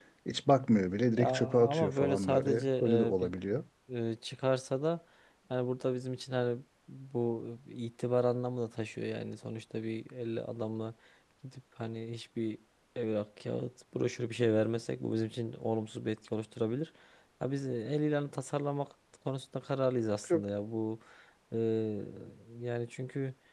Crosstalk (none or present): present